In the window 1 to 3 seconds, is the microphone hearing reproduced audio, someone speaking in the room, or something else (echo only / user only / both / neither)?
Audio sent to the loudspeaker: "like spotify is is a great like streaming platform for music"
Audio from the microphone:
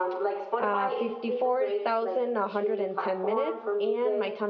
both